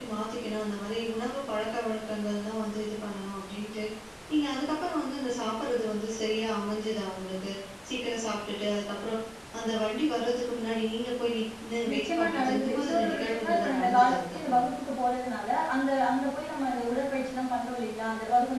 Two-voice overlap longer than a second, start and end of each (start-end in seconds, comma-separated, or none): 11.9-14.6